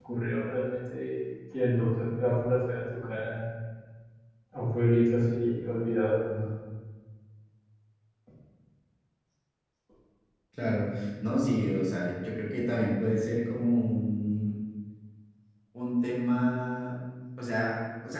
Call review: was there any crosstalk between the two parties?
No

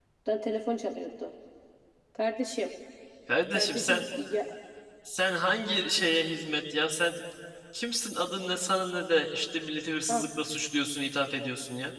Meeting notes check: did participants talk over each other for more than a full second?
No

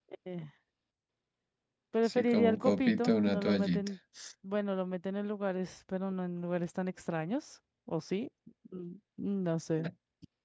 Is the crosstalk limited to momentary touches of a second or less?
No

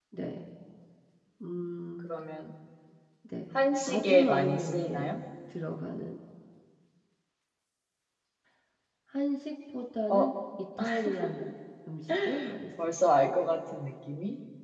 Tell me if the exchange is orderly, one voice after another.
No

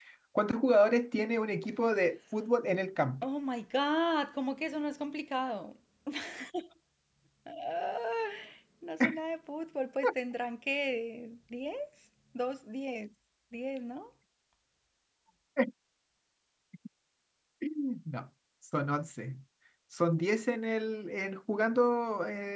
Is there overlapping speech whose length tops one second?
No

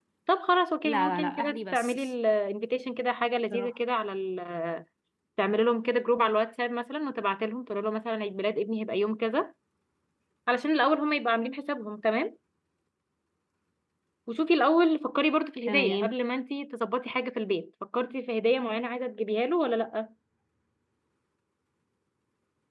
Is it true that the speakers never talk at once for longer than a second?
No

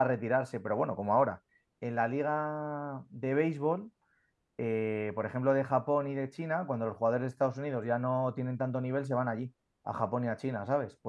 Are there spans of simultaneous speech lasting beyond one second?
No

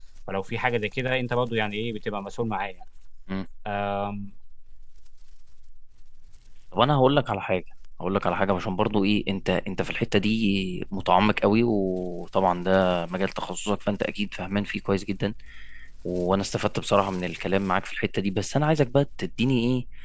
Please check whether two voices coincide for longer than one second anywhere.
No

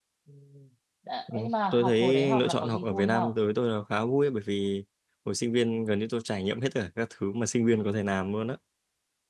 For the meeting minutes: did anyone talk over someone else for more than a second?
Yes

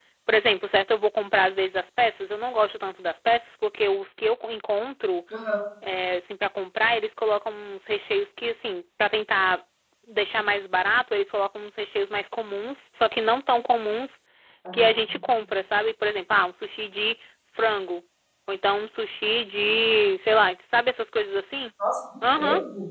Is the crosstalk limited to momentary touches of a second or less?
Yes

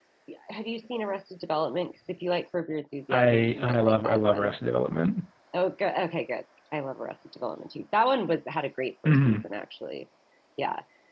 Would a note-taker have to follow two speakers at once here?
Yes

